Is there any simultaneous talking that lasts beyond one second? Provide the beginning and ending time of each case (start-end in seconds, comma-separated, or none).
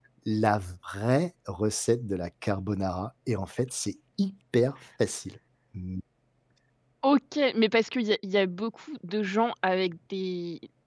none